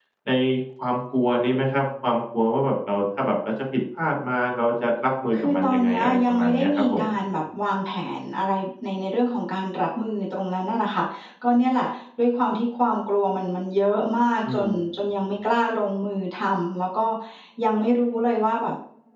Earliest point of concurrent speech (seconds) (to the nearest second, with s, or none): 5 s